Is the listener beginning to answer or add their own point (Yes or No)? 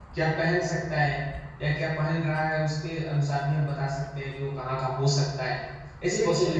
No